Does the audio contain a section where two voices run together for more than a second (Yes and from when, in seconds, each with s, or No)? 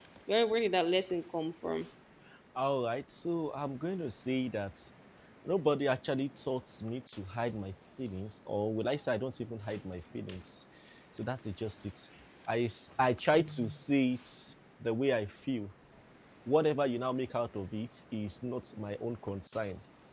No